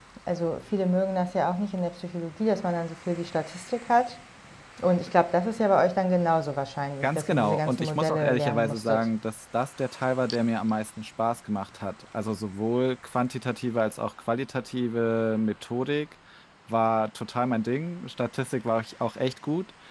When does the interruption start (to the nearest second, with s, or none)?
7 s